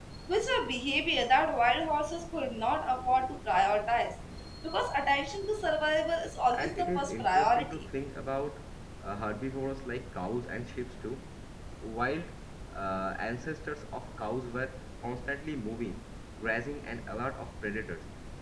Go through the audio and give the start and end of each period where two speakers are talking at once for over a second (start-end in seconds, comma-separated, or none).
6.5-7.9